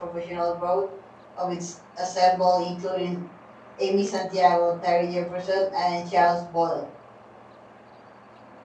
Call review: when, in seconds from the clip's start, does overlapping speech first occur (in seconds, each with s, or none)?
none